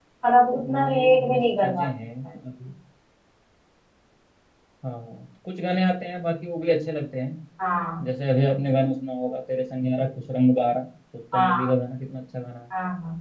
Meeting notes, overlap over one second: present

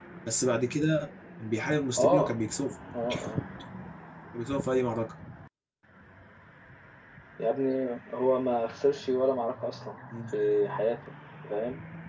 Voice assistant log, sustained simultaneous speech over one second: none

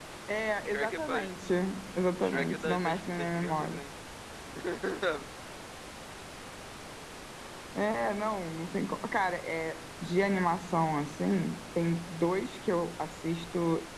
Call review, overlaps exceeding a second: present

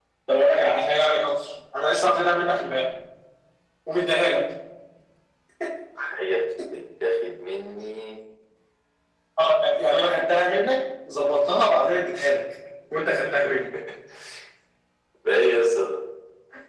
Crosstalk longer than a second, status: none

